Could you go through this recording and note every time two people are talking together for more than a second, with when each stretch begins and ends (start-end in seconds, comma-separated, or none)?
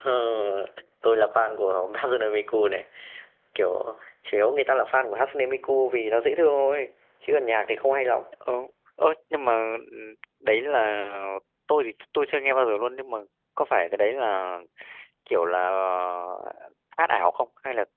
none